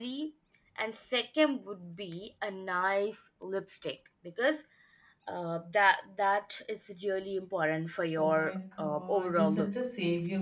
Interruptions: present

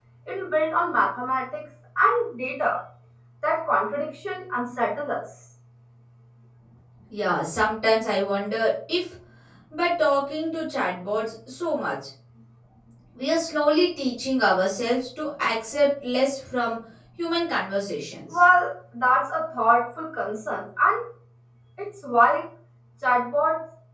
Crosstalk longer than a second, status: none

